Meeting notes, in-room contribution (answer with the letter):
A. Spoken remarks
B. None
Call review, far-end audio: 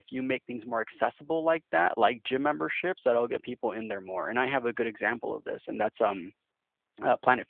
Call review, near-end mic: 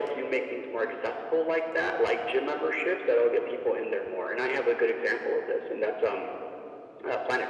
B